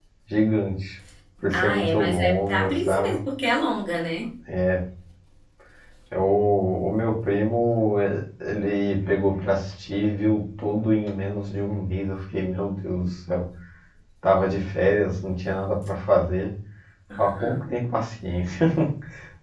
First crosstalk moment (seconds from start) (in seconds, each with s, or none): 1.5 s